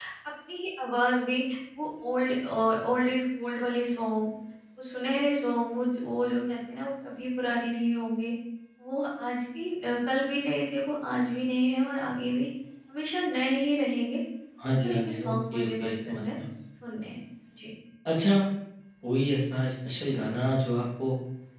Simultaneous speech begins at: 14.6 s

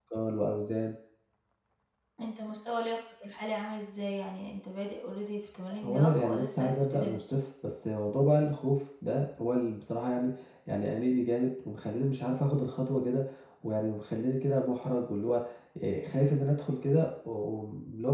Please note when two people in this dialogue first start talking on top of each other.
5.7 s

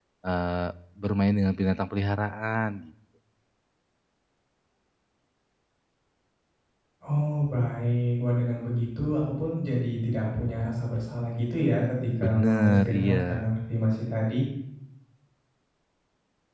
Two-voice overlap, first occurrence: 12.2 s

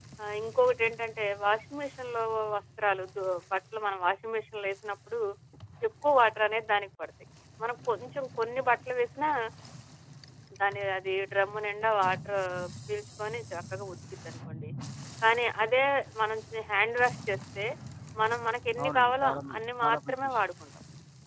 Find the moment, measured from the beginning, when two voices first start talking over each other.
18.8 s

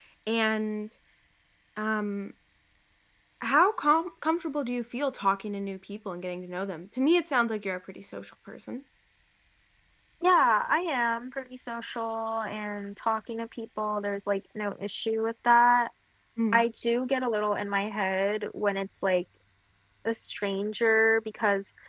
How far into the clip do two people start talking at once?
none

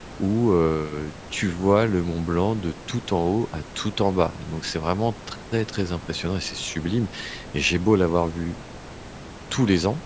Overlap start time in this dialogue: none

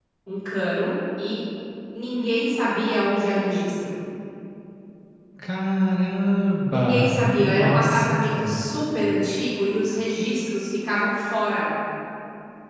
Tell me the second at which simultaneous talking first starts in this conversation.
6.7 s

